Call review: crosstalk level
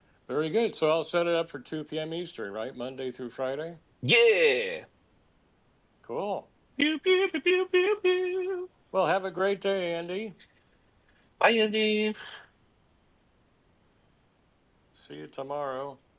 none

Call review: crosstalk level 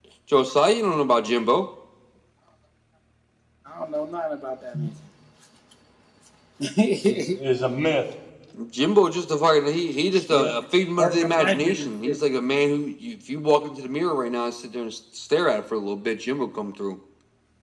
present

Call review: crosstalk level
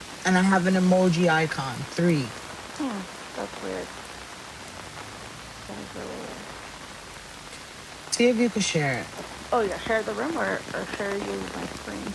none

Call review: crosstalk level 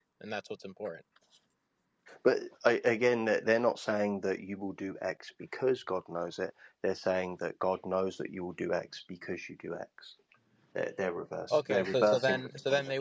present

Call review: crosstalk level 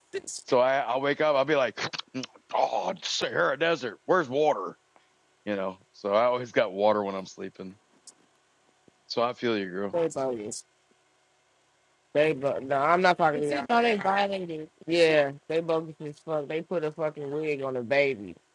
none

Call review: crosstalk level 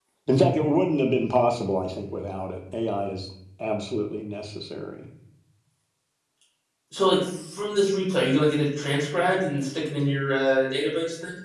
none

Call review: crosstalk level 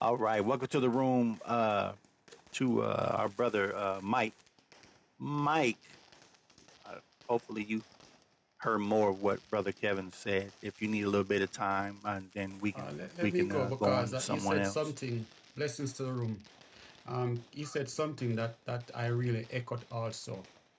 present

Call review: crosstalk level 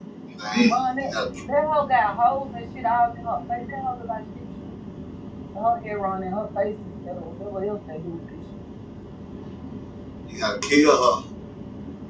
none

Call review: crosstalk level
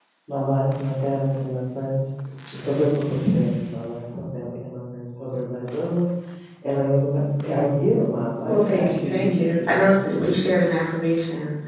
present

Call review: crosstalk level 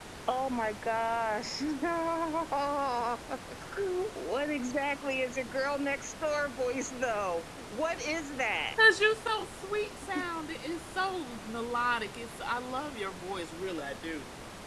none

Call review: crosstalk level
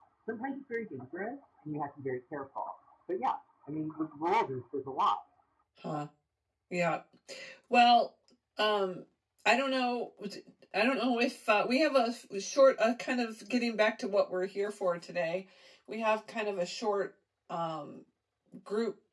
none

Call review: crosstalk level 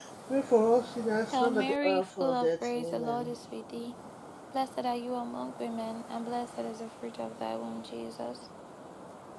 present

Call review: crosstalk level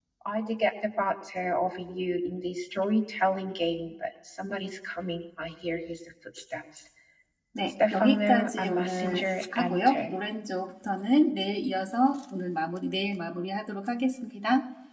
present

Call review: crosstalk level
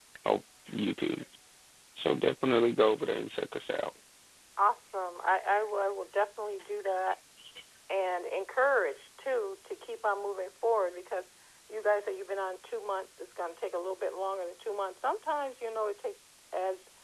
none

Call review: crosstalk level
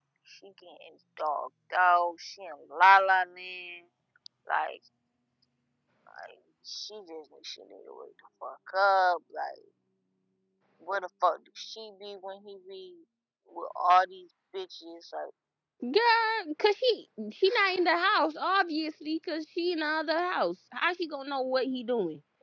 none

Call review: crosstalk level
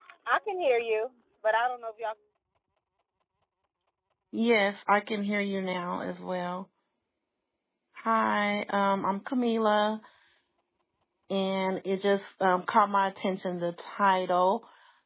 none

